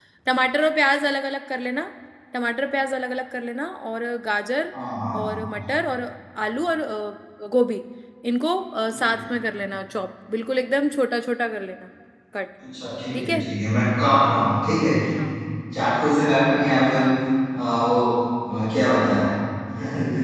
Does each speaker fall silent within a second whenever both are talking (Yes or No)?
Yes